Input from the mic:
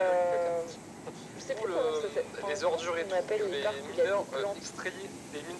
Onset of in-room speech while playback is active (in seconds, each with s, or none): none